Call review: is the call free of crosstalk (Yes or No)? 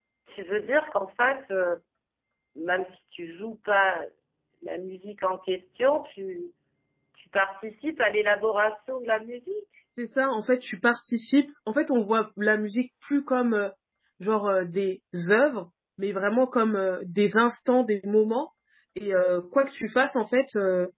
Yes